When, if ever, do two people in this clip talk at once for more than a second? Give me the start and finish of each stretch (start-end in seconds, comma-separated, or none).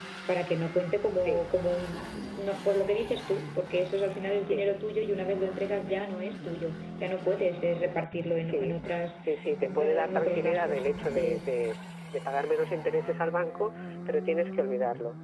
9.8-11.5